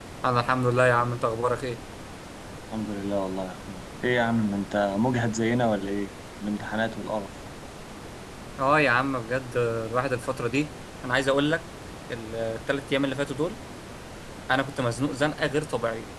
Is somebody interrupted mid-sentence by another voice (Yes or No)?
No